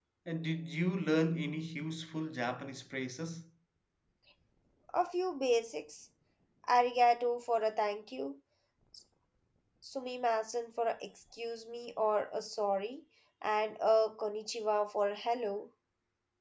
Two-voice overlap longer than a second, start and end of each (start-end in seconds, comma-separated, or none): none